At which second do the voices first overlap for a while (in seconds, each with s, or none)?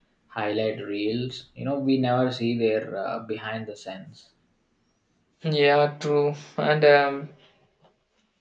none